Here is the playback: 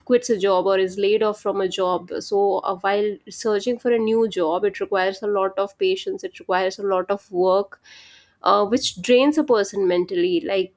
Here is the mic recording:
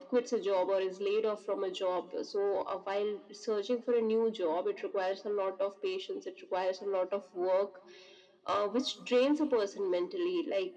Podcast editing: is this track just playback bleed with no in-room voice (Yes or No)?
Yes